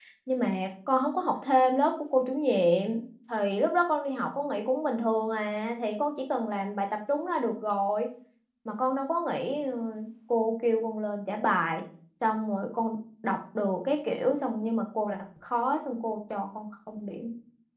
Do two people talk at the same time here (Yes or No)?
No